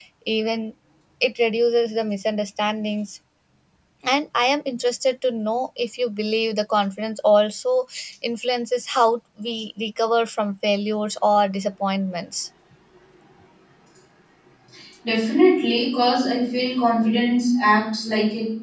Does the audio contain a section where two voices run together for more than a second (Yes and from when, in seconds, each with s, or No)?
No